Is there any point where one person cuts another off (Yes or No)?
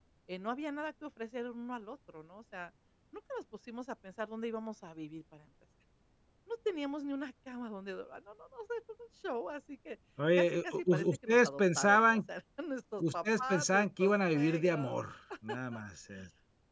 Yes